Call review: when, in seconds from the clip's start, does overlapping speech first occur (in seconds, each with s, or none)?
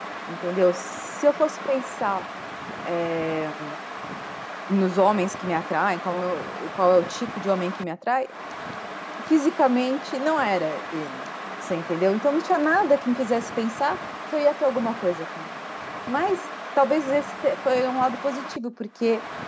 none